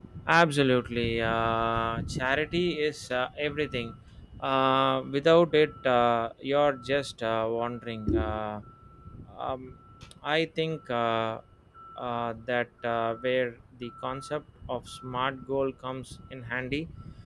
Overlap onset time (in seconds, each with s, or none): none